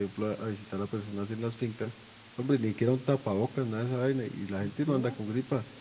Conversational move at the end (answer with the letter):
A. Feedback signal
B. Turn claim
A